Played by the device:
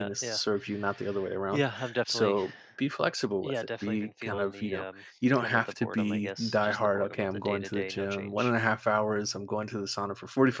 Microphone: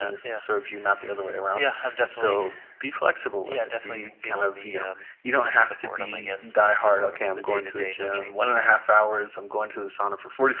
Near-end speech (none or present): none